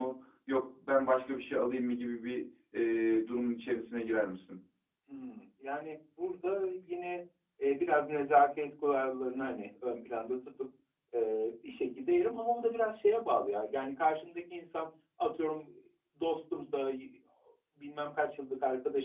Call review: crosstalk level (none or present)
none